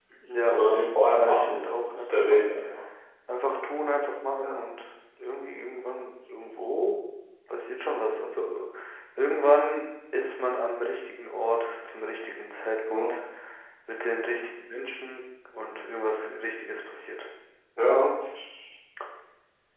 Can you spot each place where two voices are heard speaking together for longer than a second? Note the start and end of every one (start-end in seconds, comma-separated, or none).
1.1-2.5